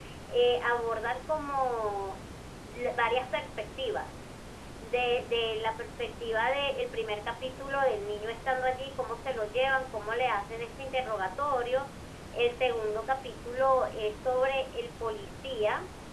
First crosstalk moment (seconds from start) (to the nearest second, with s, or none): none